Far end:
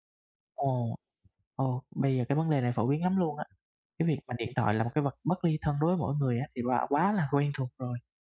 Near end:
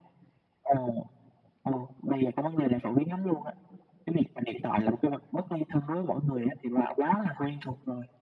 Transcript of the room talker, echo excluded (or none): none